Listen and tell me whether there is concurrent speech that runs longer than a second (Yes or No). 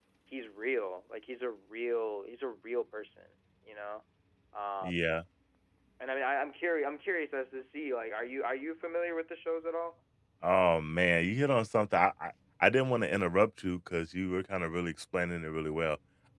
No